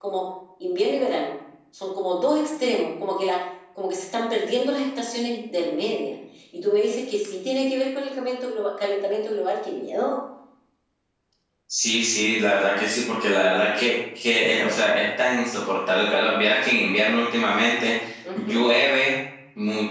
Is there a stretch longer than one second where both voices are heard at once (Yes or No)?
No